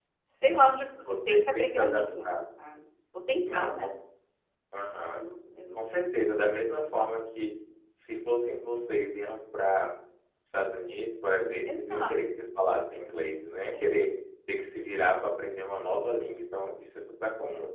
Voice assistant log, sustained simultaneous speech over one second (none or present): present